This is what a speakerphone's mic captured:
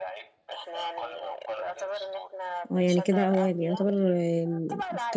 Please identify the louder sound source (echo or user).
user